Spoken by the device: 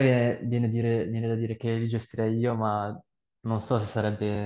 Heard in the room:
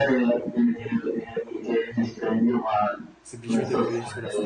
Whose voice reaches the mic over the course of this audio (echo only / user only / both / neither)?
both